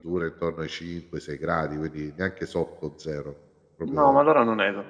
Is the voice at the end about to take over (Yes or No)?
Yes